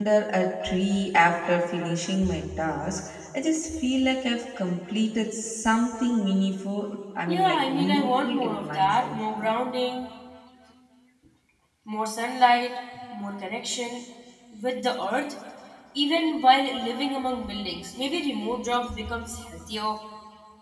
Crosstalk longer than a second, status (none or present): present